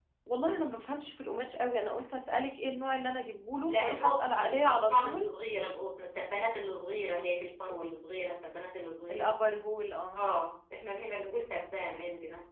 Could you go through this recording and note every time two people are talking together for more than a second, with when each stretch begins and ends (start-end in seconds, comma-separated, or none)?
3.7-5.3